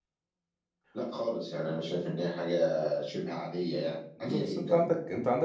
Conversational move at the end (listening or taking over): taking over